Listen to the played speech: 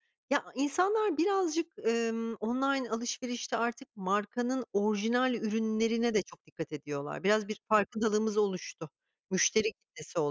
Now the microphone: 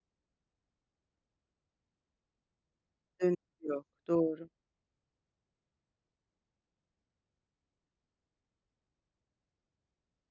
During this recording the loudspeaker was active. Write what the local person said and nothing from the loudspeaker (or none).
Dönüşü yok, doğru.